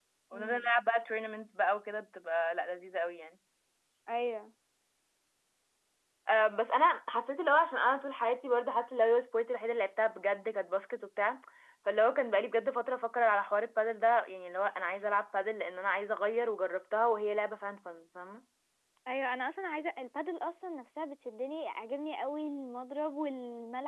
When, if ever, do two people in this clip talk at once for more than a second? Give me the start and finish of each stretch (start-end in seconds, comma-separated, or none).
none